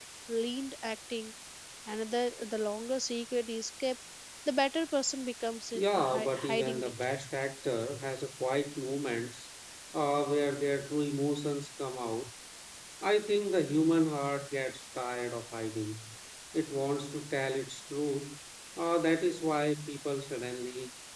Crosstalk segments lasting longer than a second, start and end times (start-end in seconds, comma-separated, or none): 5.7-7.1